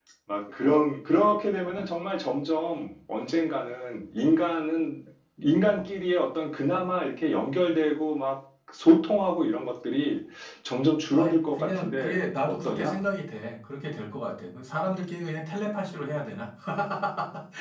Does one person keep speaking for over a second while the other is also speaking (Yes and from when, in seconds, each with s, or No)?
Yes, from 11.1 s